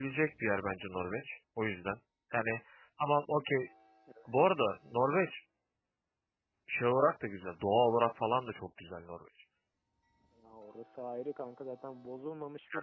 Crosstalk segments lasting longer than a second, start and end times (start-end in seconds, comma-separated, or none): none